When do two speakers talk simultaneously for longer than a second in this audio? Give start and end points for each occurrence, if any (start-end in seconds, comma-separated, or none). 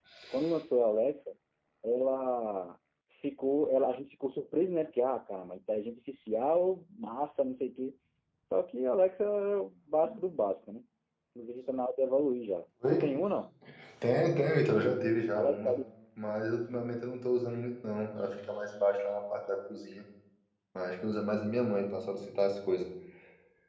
none